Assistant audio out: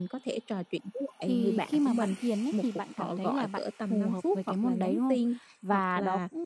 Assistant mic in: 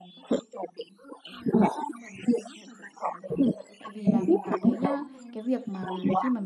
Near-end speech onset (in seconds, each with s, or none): 3.8 s